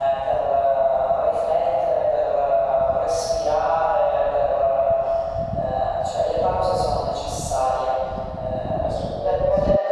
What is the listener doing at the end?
listening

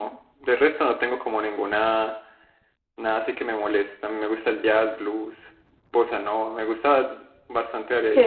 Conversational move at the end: taking over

